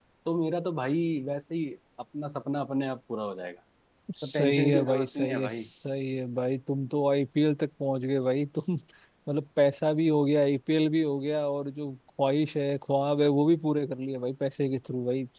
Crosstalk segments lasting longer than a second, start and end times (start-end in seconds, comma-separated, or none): 4.2-5.6